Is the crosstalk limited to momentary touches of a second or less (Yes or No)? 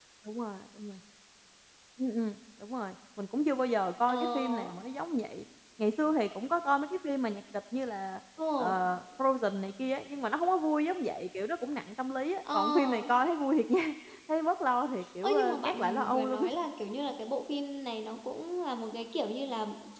No